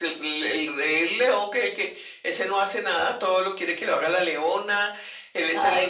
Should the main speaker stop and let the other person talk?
No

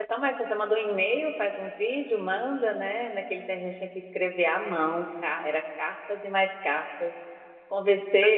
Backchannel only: Yes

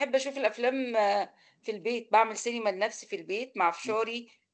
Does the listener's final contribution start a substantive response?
No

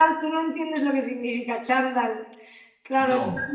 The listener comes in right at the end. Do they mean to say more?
No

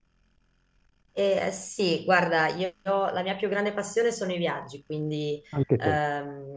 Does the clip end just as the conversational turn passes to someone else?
No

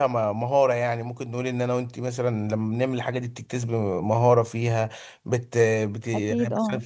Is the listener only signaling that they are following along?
Yes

